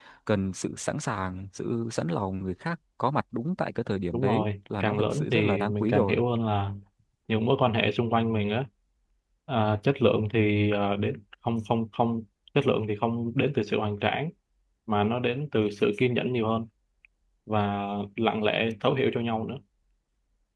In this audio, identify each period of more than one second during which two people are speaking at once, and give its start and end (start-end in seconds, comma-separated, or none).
4.1-6.2